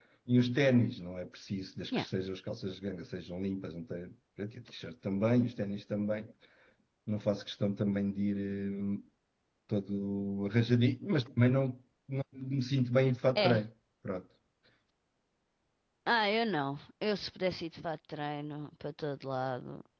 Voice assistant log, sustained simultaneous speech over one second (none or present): none